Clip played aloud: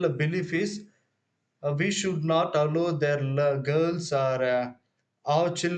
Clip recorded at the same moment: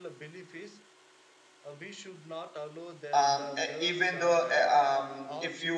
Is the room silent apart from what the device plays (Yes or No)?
No